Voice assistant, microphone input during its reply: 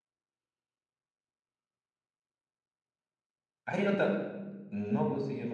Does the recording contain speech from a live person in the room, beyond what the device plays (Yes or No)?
Yes